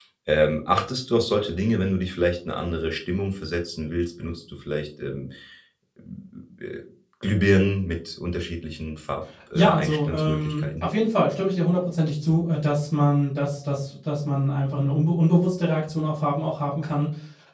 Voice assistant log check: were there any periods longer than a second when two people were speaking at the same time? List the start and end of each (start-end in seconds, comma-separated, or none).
9.6-10.8